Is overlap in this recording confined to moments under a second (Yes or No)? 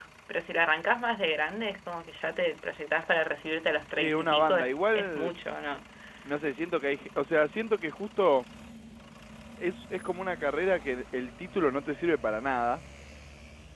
No